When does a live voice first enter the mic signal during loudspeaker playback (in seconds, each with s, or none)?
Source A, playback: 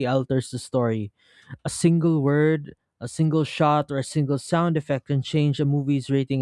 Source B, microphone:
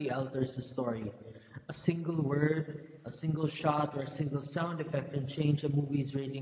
none